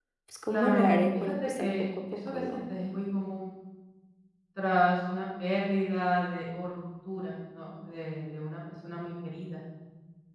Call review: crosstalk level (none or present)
present